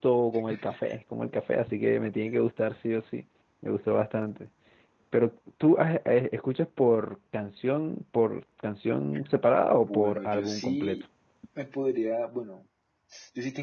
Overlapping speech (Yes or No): Yes